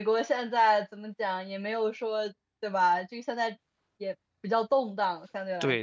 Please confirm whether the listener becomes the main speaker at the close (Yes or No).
Yes